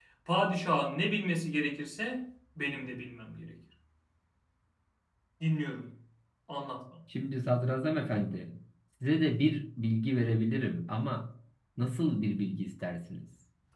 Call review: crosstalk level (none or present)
none